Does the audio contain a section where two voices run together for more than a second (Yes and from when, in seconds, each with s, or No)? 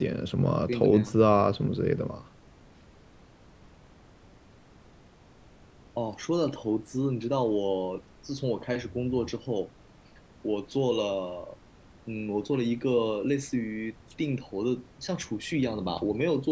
No